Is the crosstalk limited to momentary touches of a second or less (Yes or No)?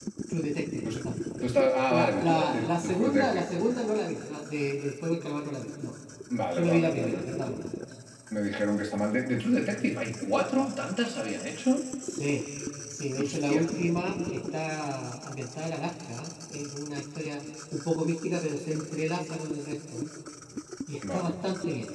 No